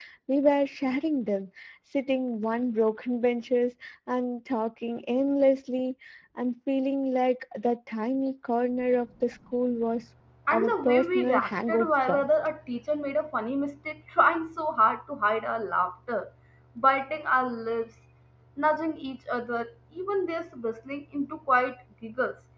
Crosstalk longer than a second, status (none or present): present